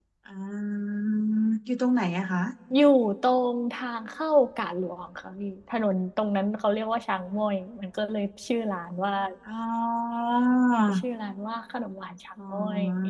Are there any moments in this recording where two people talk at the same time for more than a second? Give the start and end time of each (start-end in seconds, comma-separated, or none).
none